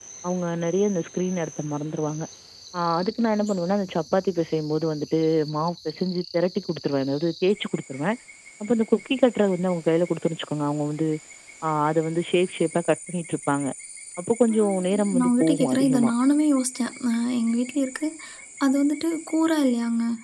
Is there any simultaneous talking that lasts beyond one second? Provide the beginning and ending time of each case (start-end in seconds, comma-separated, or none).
14.5-16.1